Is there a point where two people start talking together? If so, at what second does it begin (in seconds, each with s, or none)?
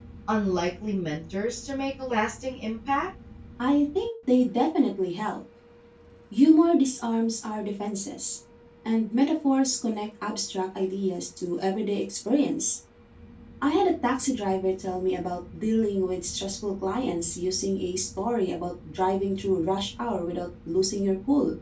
none